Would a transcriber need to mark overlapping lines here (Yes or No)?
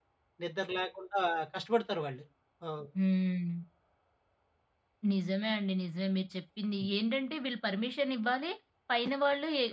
No